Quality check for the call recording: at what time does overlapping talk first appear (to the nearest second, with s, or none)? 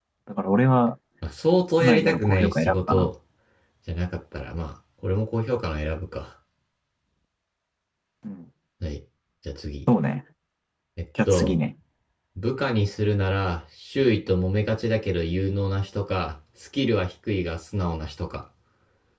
2 s